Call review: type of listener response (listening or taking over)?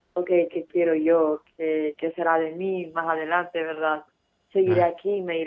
listening